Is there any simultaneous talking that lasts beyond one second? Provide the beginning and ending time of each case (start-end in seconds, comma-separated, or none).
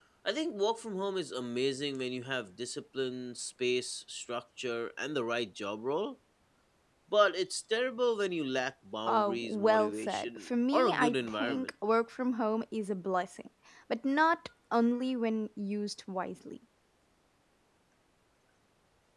9.1-11.7